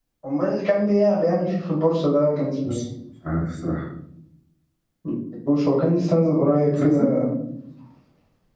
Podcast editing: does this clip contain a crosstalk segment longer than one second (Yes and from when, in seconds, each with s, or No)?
No